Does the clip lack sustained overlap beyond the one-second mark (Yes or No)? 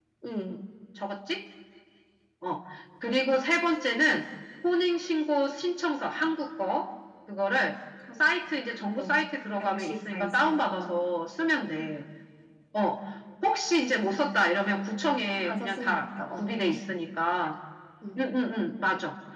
No